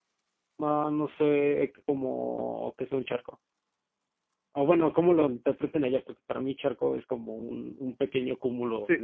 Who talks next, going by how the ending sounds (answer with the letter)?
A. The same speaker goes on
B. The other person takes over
B